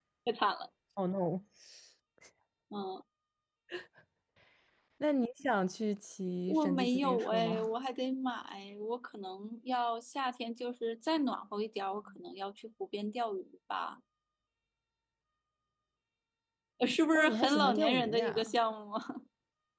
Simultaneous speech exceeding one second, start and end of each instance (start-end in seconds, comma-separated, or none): 6.5-7.7, 17.1-18.5